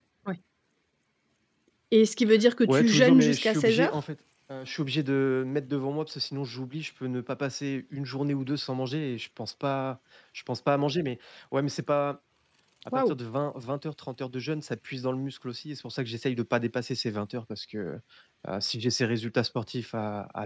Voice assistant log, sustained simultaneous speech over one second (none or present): present